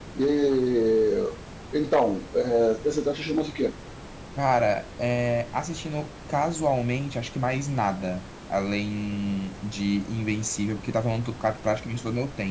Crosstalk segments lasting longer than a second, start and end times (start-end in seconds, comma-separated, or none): none